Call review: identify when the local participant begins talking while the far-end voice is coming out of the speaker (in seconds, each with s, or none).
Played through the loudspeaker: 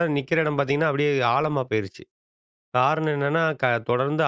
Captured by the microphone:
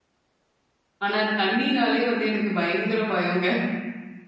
1.1 s